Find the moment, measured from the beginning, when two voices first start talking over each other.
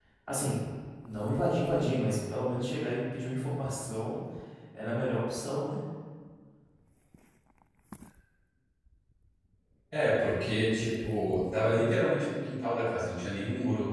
none

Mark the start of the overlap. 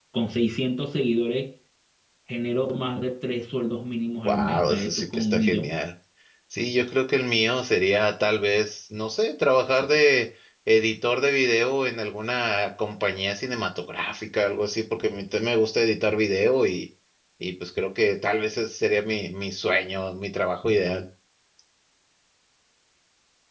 4.2 s

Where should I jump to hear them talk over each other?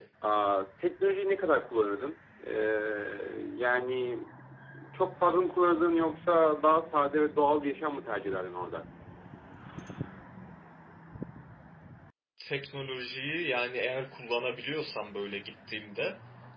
none

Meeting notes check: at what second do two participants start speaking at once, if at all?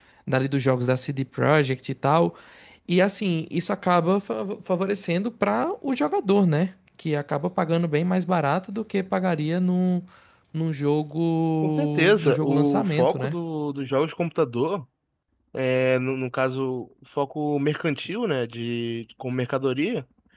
11.6 s

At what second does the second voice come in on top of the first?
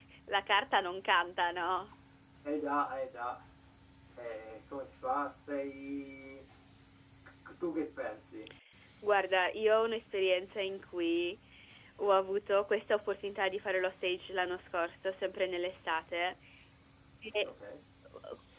none

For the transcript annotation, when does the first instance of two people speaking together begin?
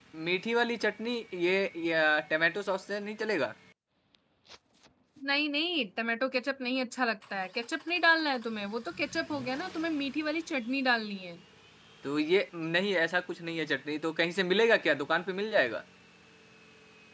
none

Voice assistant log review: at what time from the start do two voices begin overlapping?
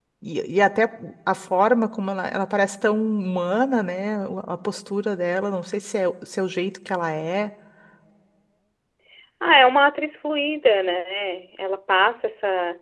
none

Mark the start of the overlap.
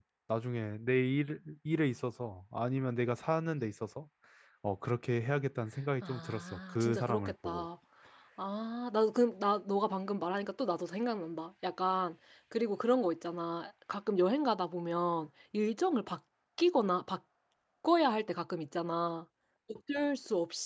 6.0 s

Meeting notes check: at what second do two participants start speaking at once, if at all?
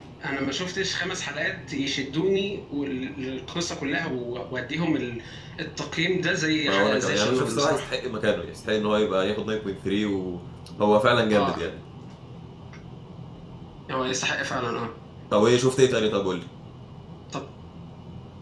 6.7 s

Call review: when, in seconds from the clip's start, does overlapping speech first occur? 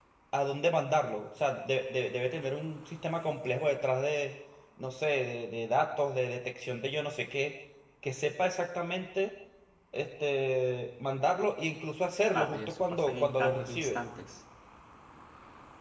12.3 s

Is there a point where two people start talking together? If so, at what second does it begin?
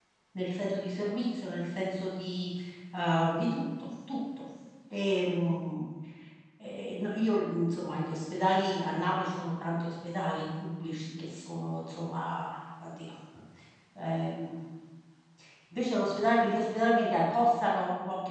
none

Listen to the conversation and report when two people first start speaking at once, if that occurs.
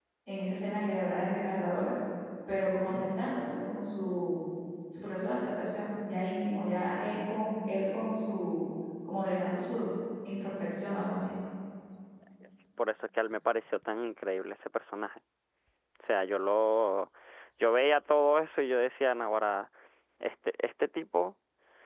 none

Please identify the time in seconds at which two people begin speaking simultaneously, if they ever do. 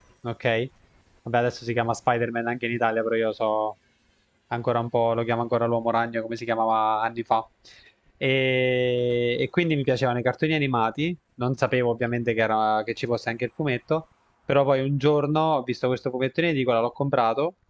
none

